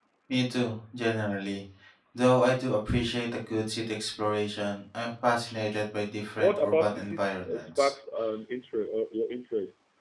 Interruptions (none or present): present